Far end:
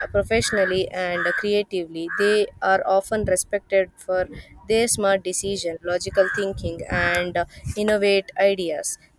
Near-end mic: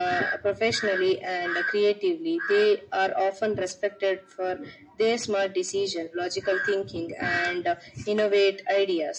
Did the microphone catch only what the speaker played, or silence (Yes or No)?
Yes